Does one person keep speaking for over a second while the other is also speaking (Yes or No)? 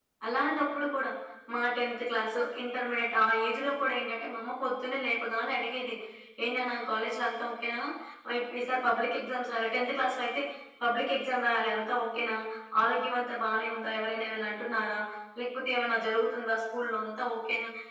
No